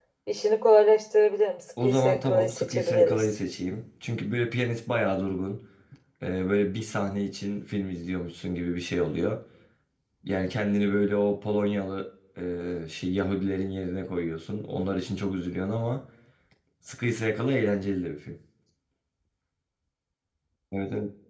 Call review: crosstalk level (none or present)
present